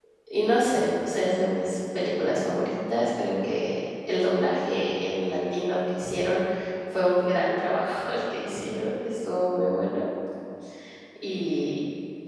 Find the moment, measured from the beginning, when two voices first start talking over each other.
none

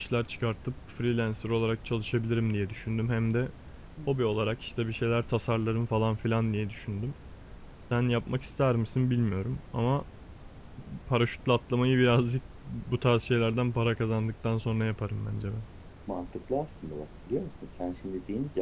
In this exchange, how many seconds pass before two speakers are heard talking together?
none

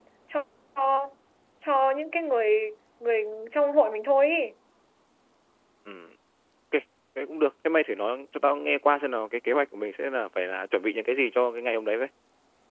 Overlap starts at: none

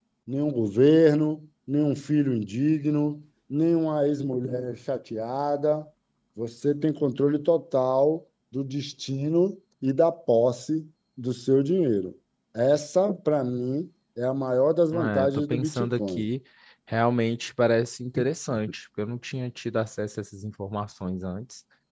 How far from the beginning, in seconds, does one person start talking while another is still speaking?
14.9 s

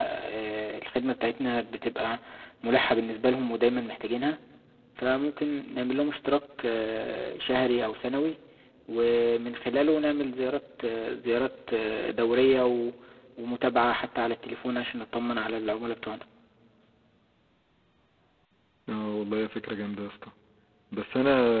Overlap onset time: none

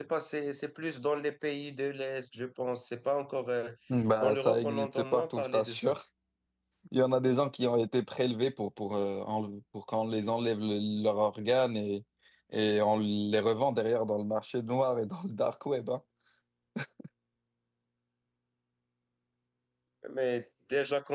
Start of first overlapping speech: 4.2 s

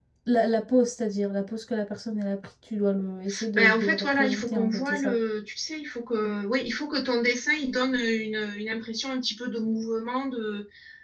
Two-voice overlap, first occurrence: 3.6 s

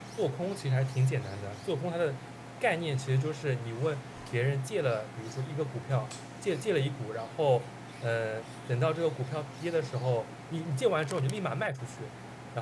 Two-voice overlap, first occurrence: none

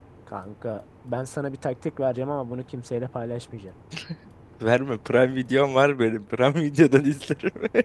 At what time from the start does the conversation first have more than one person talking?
none

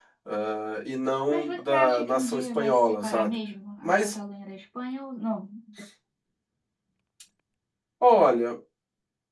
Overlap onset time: 1.3 s

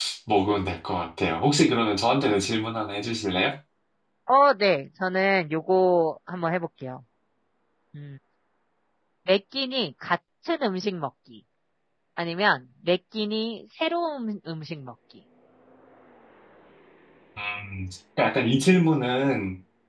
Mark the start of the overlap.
none

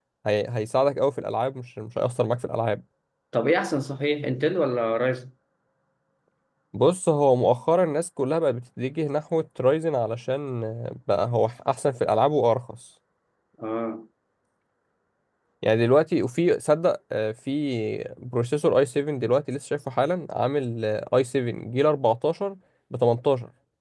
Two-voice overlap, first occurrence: none

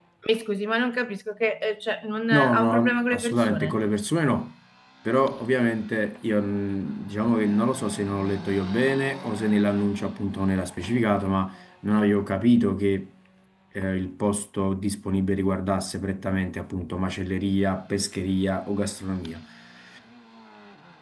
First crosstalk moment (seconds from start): 2.3 s

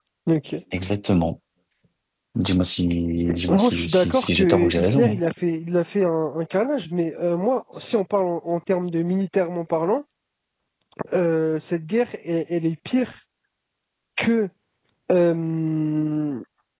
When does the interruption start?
3.5 s

